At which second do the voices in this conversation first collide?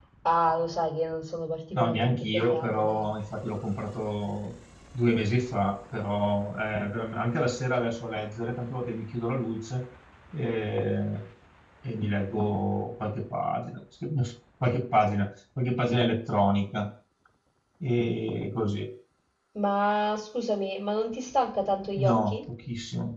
2 s

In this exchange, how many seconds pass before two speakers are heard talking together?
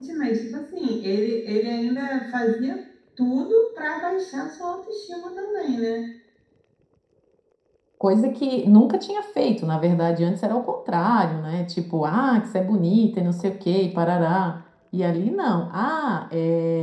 none

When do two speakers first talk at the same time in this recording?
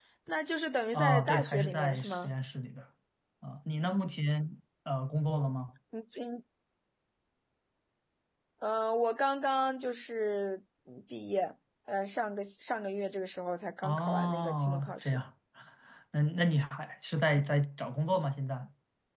1 s

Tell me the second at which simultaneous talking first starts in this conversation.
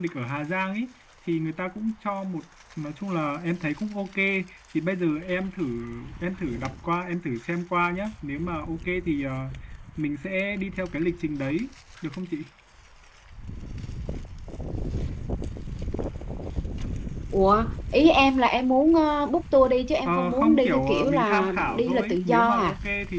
20 s

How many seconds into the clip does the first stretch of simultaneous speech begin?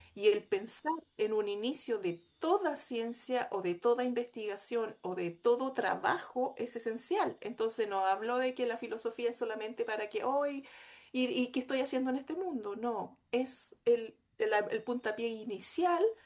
none

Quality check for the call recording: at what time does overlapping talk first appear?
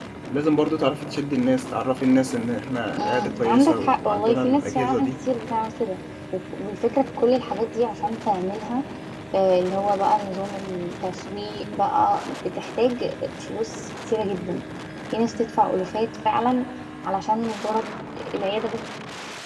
3 s

